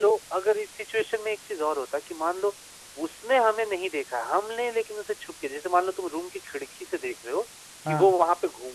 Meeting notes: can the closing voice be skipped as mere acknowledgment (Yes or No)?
Yes